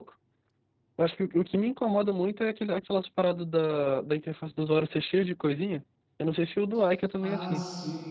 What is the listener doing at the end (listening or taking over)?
taking over